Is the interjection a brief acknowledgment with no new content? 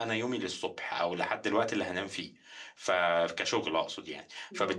Yes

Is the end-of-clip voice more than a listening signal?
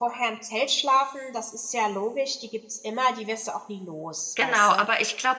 Yes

